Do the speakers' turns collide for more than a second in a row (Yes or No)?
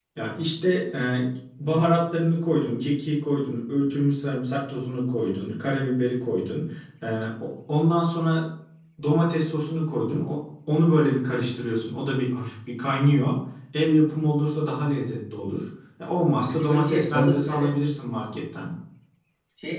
Yes